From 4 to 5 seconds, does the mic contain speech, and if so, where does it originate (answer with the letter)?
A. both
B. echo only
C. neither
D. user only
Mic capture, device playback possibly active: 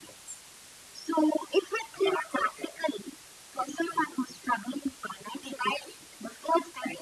B